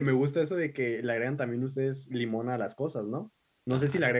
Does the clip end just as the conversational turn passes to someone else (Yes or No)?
No